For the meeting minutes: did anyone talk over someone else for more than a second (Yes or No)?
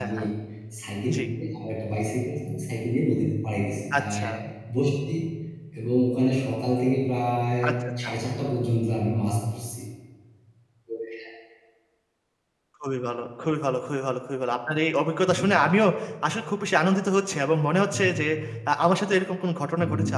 No